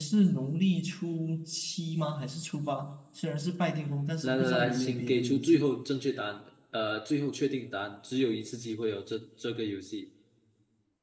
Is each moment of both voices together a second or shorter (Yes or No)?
No